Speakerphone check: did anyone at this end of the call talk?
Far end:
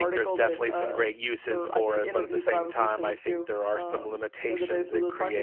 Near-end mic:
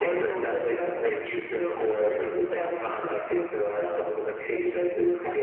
No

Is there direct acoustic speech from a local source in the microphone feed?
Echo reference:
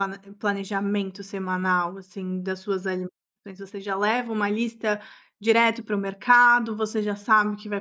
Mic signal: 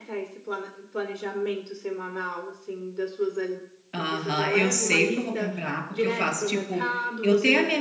Yes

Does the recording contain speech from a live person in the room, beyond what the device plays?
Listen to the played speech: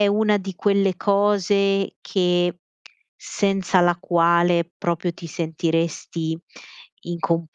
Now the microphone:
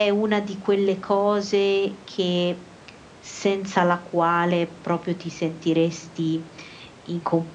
No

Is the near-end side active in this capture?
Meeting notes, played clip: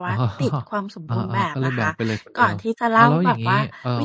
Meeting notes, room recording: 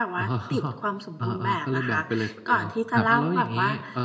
Yes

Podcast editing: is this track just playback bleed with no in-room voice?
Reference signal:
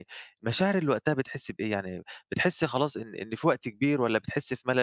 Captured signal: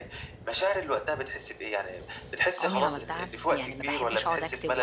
No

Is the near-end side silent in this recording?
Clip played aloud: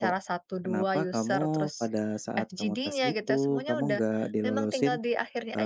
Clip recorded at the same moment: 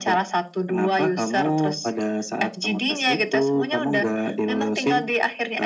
Yes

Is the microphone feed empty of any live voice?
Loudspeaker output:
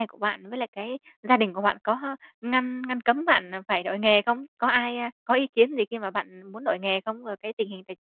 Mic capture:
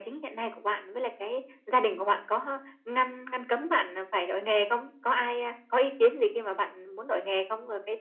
Yes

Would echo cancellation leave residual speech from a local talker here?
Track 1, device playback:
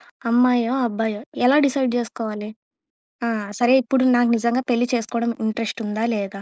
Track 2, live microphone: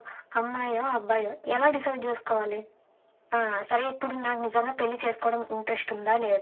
No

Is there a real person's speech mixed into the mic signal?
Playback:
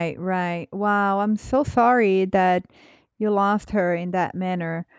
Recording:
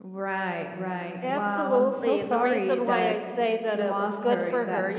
Yes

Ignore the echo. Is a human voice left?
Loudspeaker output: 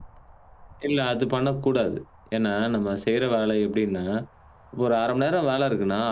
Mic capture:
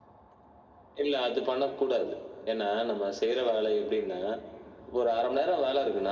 No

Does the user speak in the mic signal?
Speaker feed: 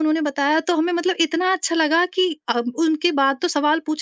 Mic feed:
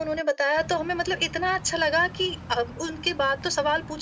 No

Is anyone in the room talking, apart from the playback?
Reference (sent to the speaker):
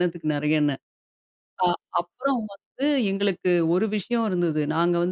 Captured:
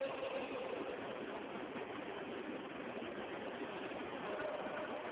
No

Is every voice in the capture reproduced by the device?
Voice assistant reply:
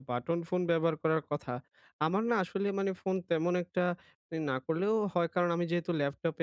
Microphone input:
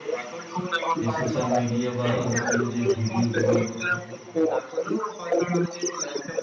No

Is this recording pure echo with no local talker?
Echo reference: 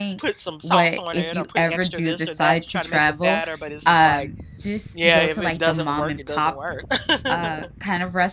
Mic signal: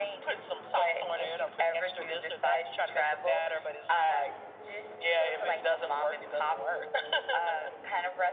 Yes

